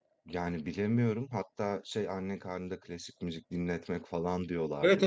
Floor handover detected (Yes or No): Yes